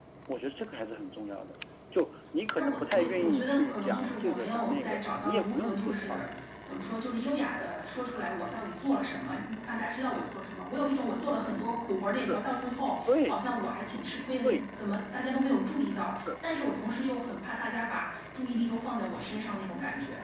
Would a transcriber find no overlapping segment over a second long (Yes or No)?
No